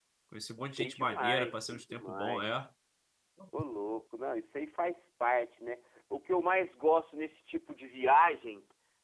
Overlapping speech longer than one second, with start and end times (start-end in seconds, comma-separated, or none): 0.8-2.4